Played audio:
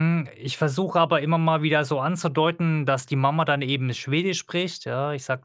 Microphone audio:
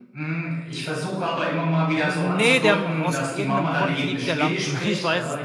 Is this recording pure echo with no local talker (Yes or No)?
No